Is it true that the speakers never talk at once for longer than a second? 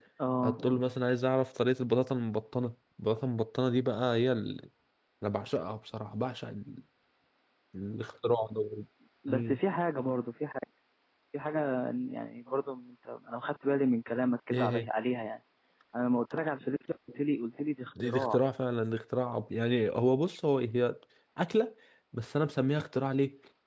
Yes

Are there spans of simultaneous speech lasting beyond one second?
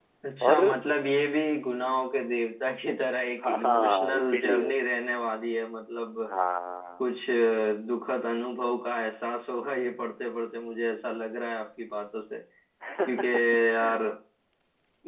Yes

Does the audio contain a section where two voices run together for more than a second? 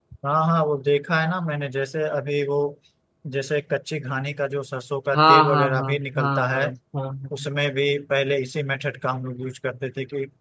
Yes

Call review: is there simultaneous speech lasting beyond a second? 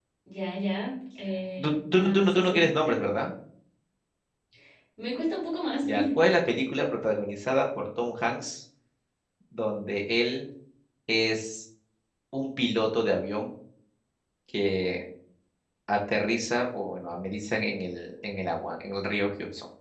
Yes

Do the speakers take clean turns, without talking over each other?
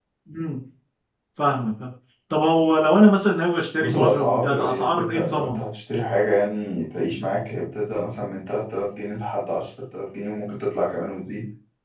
No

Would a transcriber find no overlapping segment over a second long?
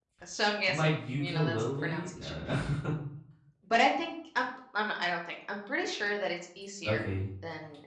No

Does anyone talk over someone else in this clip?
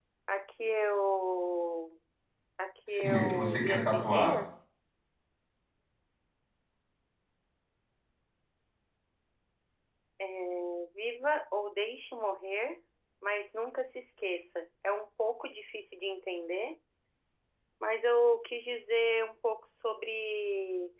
Yes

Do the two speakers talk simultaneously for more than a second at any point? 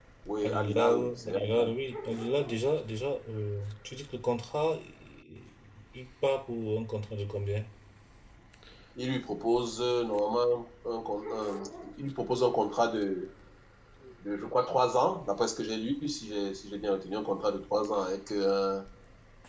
Yes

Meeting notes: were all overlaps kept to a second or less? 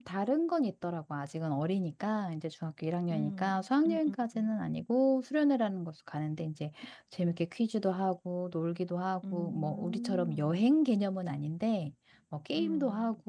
No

